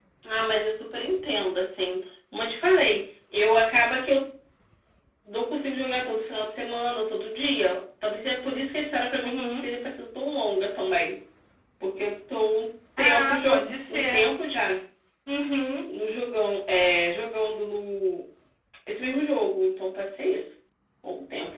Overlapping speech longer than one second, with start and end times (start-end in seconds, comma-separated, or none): 13.0-14.2